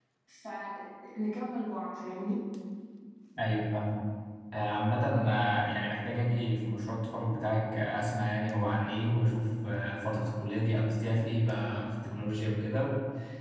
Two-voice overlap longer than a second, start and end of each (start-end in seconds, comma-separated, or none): none